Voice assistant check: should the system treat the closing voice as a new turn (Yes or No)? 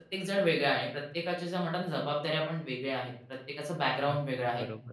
No